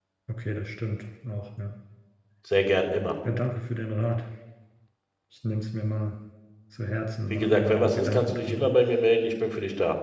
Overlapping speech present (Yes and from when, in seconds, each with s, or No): Yes, from 7.3 s